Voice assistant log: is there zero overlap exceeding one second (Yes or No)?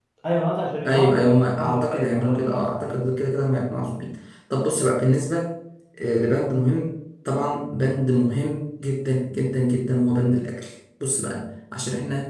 No